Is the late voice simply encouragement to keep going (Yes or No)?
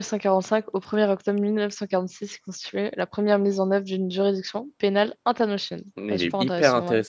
No